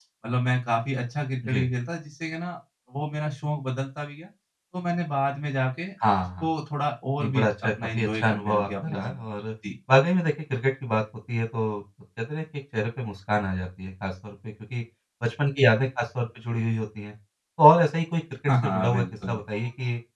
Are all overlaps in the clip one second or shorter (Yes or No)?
No